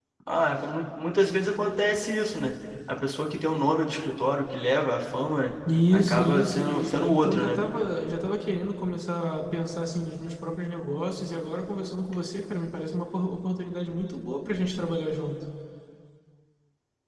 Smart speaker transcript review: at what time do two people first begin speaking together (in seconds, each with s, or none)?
5.6 s